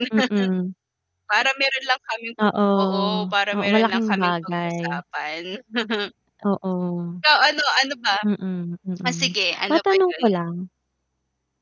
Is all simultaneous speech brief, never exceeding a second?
No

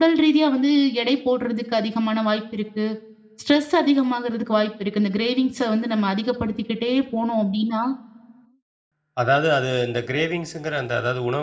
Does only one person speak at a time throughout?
Yes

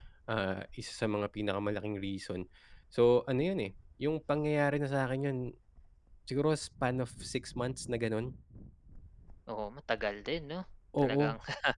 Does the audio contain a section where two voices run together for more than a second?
No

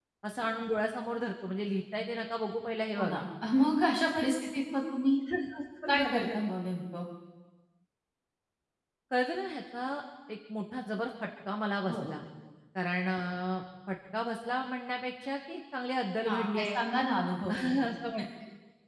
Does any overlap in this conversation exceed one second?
No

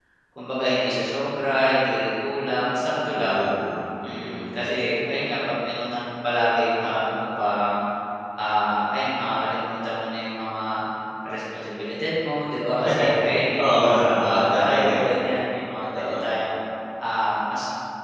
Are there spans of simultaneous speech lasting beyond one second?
Yes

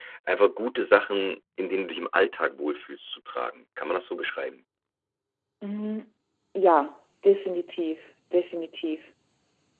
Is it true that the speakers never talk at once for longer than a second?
Yes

